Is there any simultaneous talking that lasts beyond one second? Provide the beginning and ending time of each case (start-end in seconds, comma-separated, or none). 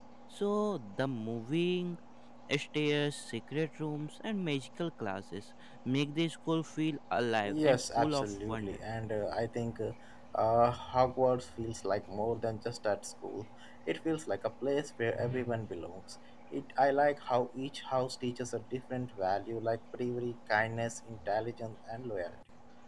7.5-8.8